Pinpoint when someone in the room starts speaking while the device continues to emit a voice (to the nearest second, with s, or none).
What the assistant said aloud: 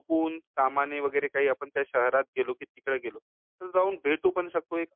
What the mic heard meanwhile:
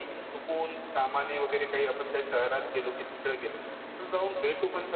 none